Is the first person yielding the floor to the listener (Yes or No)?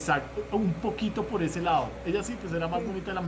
No